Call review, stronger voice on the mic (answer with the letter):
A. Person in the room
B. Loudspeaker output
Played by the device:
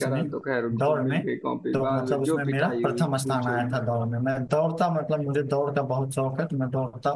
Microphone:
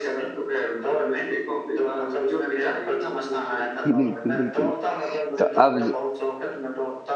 A